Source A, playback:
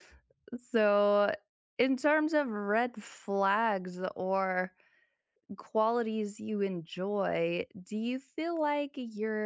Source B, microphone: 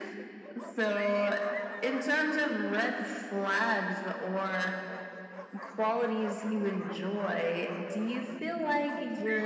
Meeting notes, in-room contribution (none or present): none